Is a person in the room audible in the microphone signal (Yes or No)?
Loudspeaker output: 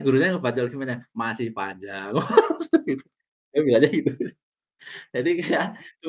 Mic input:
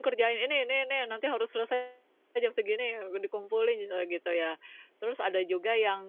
Yes